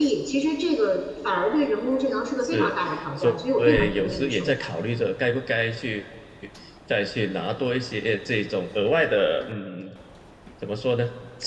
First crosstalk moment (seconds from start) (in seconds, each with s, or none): 2.4 s